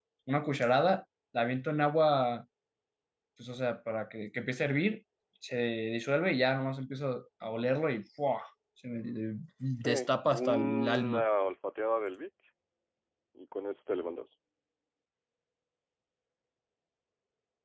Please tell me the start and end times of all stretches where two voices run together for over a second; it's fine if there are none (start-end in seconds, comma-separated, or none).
9.8-11.2